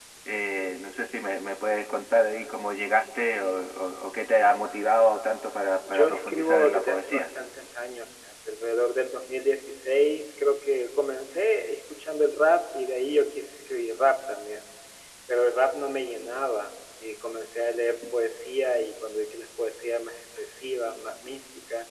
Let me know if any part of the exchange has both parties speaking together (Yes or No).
Yes